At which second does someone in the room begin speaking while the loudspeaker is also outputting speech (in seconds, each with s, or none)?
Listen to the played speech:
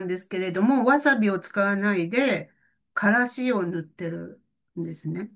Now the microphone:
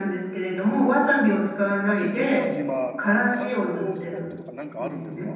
1.9 s